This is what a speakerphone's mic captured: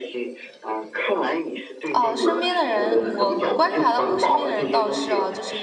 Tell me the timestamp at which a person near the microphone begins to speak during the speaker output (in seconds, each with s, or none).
1.9 s